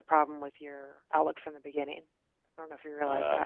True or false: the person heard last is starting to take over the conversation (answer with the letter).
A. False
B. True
B